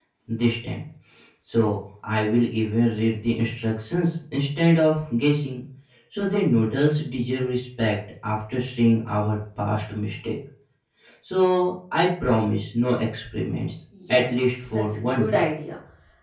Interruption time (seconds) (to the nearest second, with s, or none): 14 s